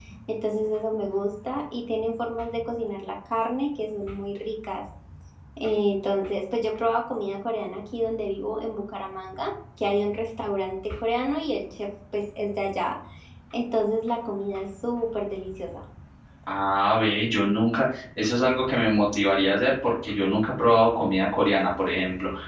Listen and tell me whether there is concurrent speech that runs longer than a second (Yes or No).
No